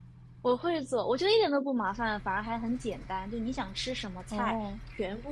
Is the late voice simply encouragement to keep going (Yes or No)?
Yes